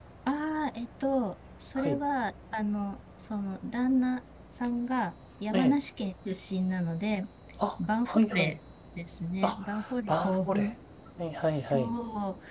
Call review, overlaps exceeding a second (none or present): present